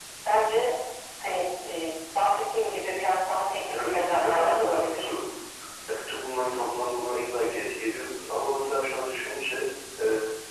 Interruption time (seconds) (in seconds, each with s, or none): 3.7 s